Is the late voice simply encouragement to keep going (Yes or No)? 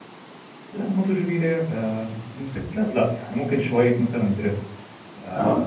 Yes